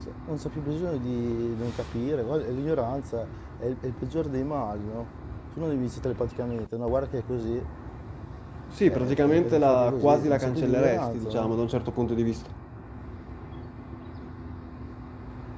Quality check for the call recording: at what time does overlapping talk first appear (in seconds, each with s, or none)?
8.8 s